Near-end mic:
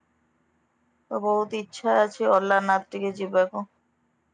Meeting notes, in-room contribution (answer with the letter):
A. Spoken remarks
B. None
A